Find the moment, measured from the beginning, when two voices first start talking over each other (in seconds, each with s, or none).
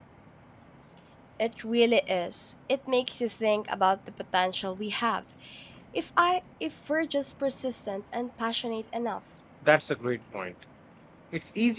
none